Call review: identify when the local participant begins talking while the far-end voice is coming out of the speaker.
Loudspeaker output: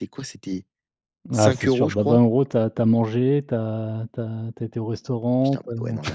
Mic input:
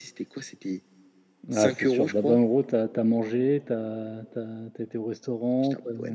none

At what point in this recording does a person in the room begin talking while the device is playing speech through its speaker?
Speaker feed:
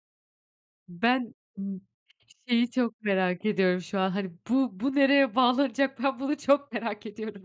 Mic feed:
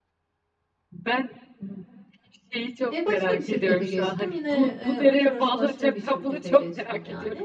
2.9 s

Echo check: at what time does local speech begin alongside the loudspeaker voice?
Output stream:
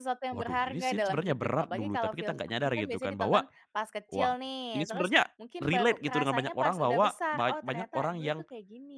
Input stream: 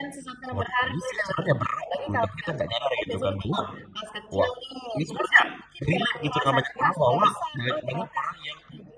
none

